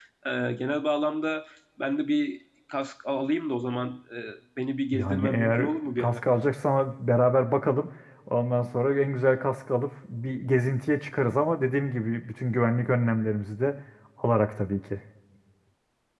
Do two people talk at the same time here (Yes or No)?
Yes